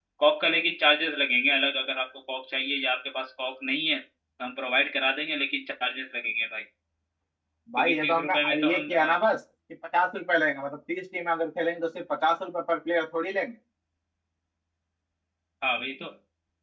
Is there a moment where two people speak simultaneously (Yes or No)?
Yes